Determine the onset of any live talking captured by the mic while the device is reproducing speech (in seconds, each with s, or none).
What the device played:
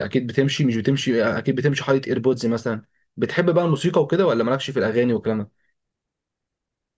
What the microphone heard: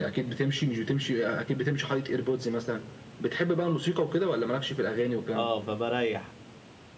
5.3 s